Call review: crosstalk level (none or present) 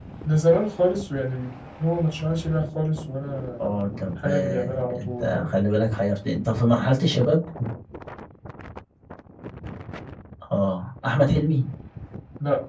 present